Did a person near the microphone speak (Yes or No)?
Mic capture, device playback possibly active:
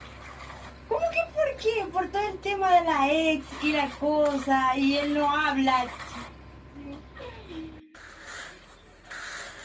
No